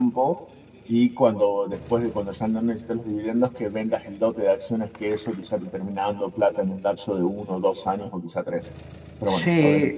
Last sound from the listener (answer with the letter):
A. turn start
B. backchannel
A